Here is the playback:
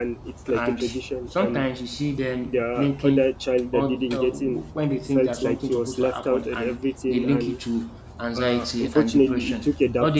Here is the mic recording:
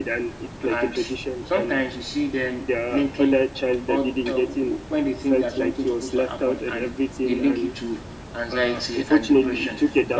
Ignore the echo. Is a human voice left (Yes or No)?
No